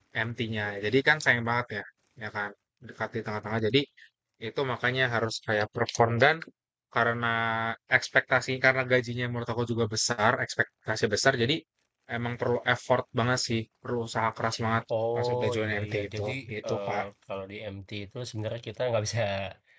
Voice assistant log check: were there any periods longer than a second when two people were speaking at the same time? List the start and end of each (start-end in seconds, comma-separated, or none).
15.2-17.0